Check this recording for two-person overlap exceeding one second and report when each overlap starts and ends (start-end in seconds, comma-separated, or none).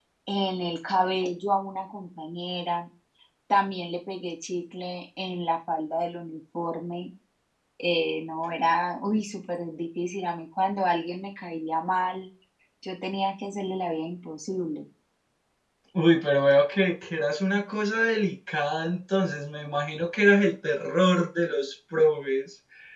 none